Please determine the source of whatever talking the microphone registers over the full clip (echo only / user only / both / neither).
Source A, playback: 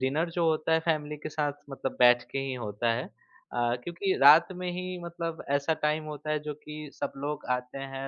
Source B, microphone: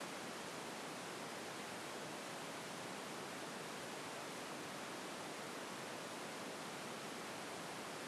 neither